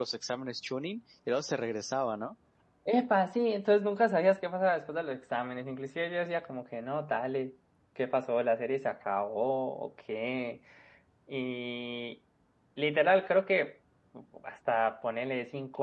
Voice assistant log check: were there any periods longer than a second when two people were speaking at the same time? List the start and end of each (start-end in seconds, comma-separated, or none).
none